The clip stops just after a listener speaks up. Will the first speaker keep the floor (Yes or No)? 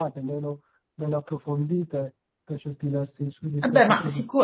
No